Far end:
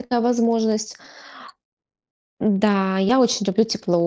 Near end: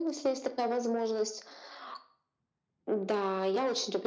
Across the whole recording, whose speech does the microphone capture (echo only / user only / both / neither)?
echo only